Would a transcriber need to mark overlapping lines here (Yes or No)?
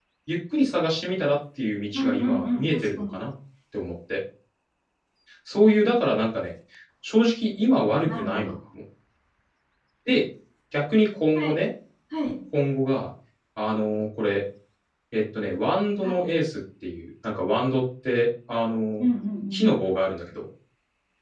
Yes